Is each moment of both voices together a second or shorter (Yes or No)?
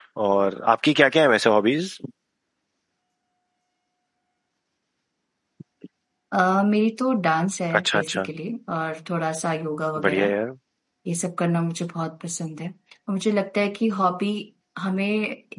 Yes